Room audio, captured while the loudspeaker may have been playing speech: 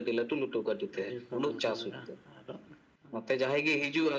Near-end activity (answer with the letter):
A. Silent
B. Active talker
A